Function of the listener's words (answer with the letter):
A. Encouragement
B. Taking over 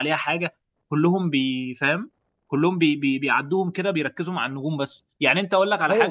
B